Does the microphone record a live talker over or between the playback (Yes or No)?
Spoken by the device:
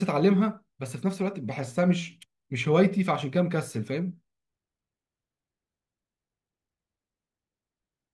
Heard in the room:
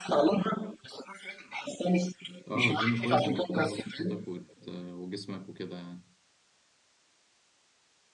Yes